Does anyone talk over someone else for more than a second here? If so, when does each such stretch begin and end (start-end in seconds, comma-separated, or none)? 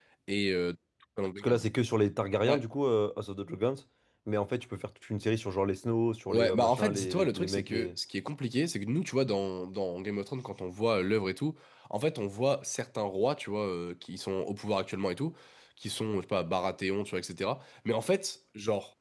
6.3-8.0